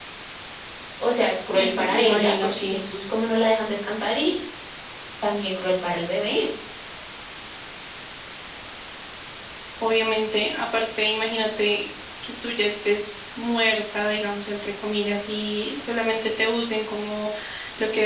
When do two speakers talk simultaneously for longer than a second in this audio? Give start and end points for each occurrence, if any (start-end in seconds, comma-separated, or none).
1.5-2.8